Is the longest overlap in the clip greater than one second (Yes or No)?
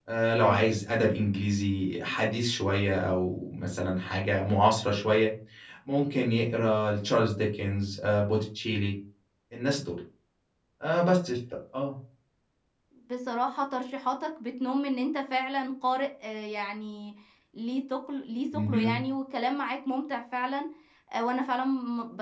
No